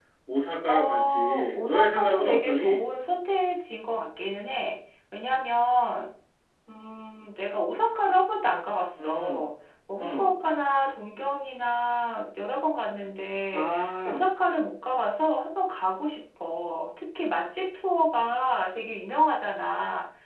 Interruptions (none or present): present